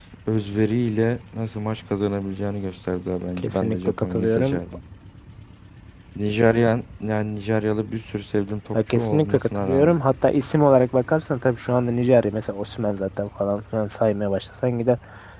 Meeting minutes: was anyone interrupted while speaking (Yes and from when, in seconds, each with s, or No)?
Yes, from 3.4 s